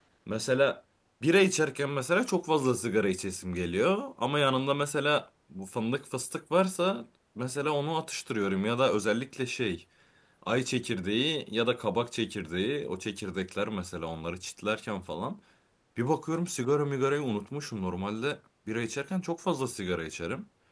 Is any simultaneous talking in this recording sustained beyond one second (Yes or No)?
No